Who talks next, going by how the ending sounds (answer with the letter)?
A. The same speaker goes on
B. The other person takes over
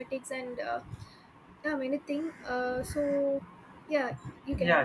B